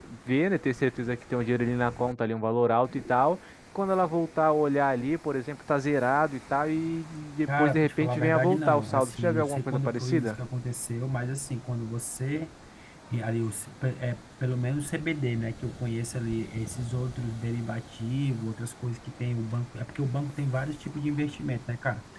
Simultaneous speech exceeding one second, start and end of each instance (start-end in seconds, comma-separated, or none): 7.5-10.4